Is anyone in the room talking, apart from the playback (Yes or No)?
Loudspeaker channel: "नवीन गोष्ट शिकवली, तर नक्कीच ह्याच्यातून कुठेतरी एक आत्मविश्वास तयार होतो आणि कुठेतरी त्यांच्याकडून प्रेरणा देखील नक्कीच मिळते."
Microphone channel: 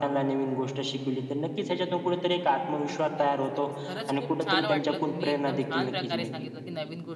Yes